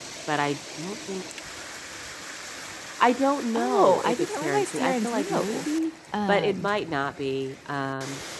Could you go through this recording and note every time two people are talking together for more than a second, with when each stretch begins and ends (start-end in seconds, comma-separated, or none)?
3.5-5.7